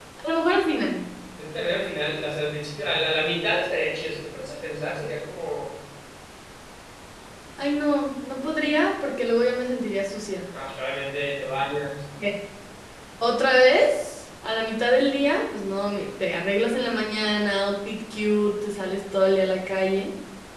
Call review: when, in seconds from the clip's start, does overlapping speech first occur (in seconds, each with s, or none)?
none